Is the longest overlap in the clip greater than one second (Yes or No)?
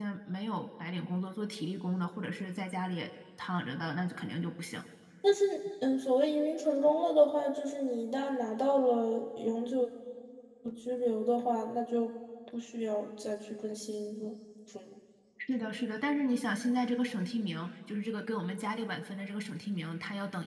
No